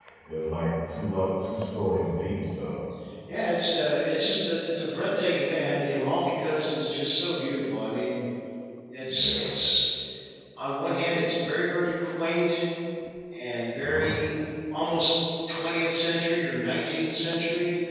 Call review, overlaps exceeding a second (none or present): none